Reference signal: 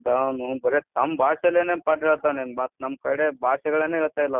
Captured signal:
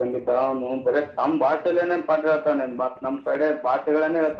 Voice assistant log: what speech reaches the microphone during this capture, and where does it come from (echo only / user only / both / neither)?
echo only